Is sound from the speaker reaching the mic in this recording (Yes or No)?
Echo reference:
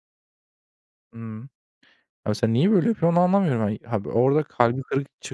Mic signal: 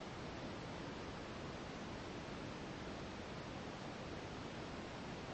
No